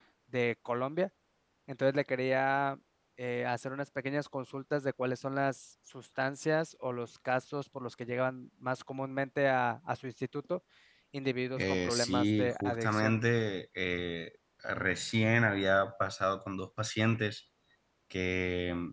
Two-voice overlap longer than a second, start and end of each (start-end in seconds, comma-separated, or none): 11.6-13.2